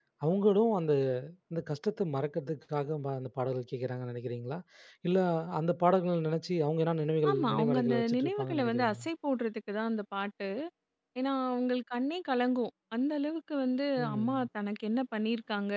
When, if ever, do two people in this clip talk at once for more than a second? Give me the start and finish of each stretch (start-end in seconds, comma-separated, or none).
7.3-9.1